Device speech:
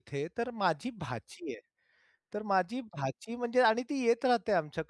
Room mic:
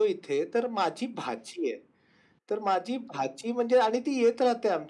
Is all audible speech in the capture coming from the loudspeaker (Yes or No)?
Yes